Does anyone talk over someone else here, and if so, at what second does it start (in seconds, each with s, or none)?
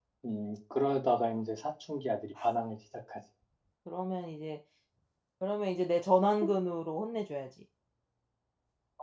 none